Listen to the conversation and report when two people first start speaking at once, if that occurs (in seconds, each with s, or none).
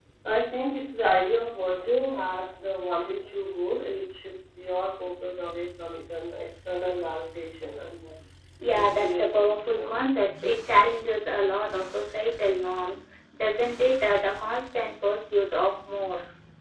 8.7 s